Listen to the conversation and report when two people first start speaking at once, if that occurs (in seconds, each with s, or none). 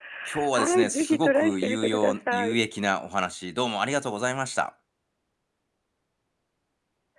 0.5 s